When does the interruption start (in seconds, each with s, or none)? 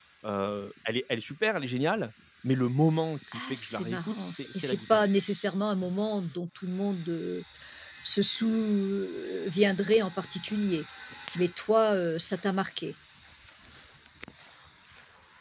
3.3 s